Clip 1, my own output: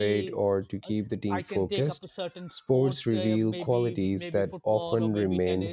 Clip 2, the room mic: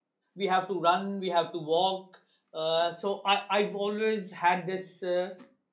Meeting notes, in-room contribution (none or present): present